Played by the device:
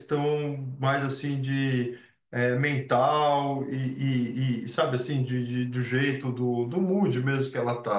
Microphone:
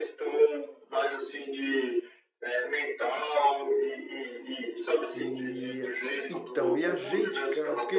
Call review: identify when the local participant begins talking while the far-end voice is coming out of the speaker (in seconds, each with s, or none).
5.1 s